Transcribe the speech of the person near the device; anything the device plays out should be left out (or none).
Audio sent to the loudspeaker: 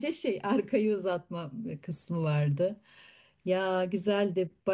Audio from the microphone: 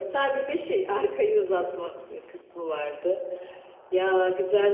none